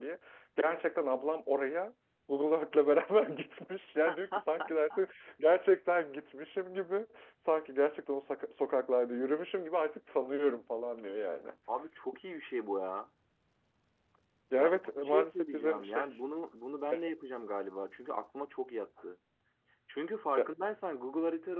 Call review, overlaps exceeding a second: present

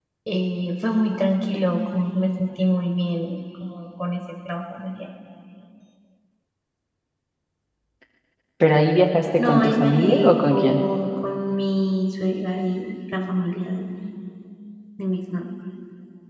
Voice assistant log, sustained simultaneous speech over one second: present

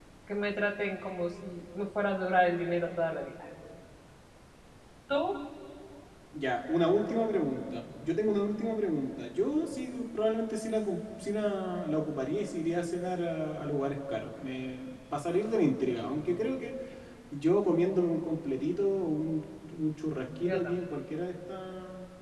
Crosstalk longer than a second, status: none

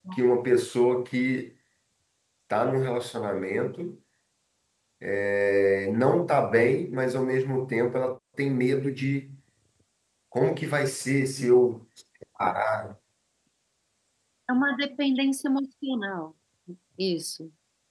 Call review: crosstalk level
none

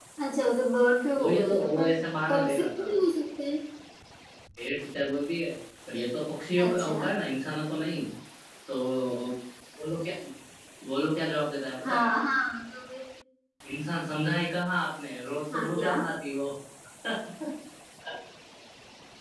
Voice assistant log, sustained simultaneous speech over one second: present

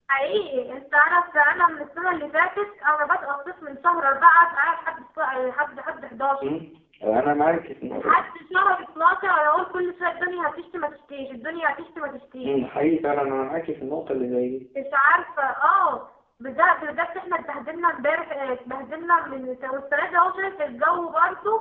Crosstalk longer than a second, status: none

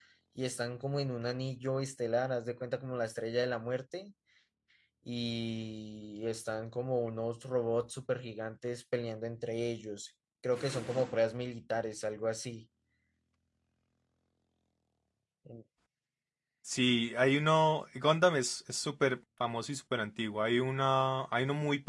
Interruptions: none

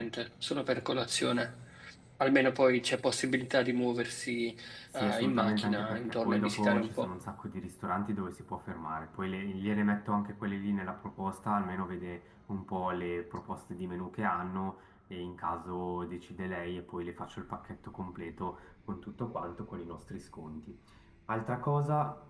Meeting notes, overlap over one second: present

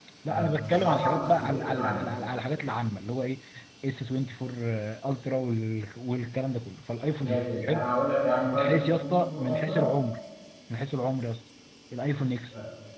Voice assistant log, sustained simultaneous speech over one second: present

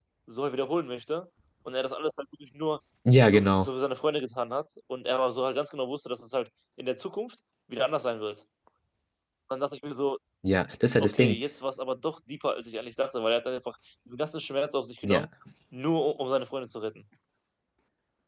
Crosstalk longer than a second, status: none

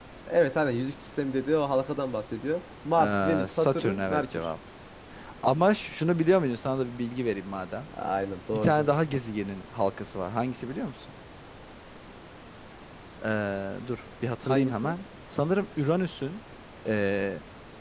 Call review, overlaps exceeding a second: present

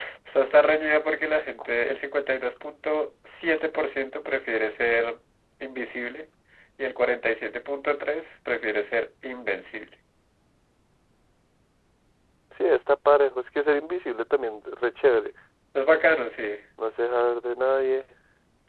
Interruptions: none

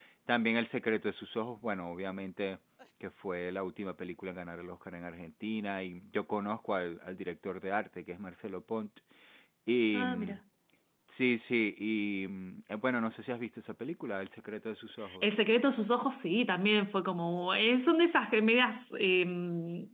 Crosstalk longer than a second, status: none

